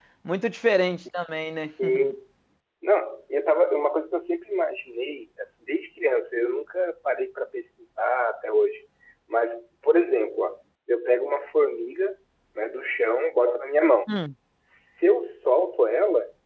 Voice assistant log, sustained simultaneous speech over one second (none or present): none